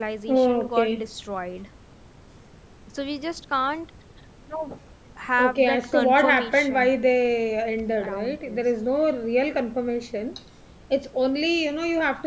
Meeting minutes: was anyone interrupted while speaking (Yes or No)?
Yes